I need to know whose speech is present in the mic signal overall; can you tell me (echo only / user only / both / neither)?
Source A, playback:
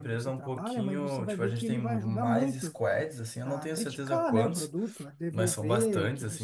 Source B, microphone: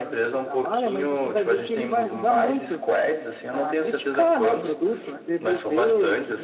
echo only